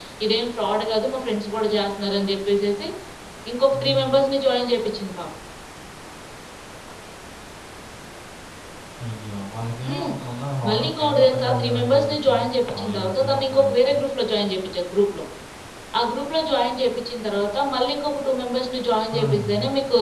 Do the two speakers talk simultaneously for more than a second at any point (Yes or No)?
Yes